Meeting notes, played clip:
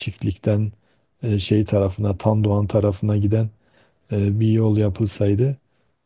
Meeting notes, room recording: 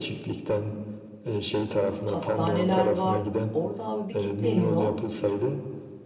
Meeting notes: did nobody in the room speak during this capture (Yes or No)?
No